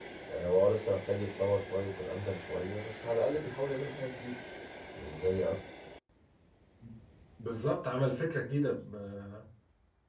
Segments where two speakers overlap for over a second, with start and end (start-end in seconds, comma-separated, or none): none